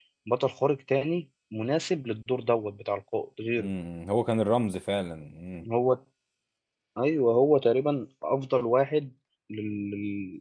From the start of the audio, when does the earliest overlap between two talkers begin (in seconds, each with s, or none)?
none